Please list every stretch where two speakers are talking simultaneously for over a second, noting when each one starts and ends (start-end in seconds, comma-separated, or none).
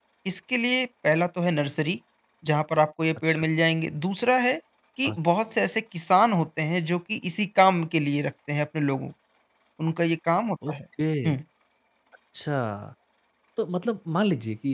none